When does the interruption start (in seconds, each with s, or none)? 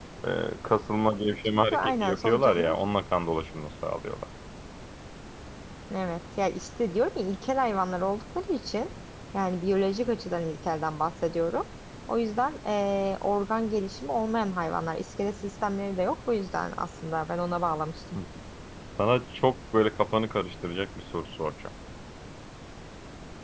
1.5 s